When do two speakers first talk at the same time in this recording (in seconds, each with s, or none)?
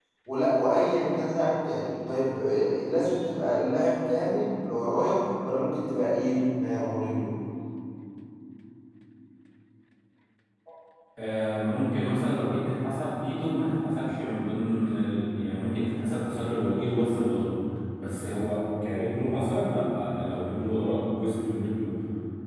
none